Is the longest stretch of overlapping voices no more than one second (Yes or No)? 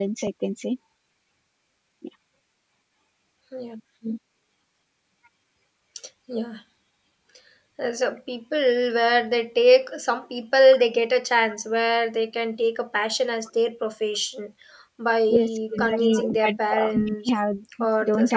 No